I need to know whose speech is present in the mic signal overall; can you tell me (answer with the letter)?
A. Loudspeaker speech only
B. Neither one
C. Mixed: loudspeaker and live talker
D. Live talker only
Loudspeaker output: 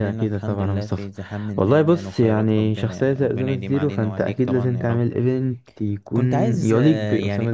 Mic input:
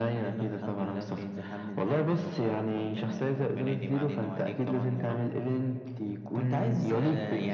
A